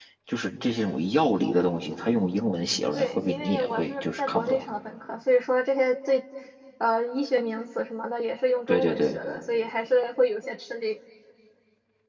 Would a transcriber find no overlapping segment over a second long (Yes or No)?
No